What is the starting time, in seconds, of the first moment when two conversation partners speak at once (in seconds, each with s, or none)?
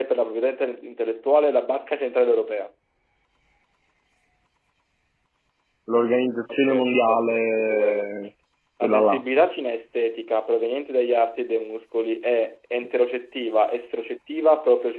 6.5 s